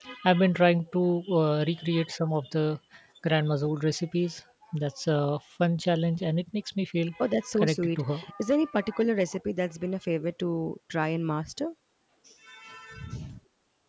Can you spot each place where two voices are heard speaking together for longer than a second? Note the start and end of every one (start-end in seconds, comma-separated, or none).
none